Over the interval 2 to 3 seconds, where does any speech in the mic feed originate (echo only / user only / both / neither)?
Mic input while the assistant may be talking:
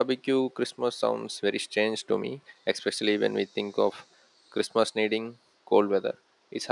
user only